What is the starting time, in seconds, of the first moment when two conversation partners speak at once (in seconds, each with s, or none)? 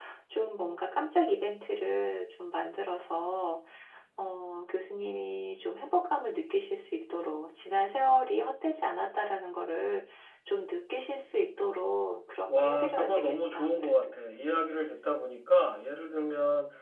12.5 s